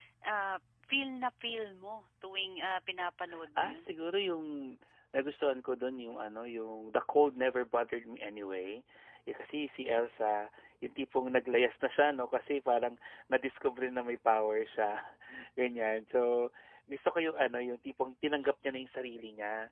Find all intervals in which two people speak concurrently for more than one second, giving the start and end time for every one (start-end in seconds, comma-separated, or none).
none